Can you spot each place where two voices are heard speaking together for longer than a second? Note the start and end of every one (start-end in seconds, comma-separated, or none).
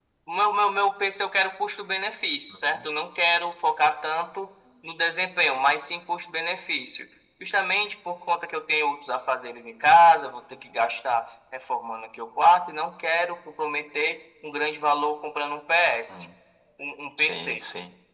none